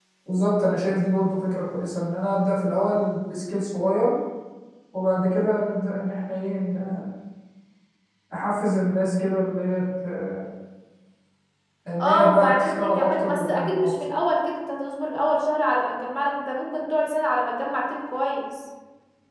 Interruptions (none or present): present